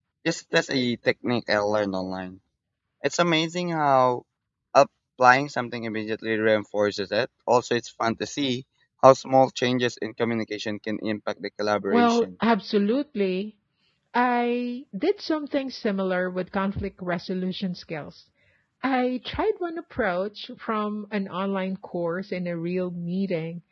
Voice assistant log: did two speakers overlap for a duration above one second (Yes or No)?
No